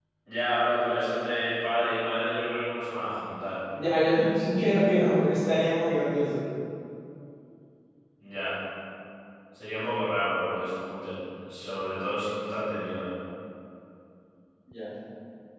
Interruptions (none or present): none